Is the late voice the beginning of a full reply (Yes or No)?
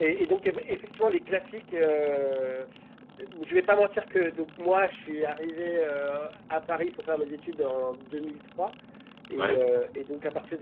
No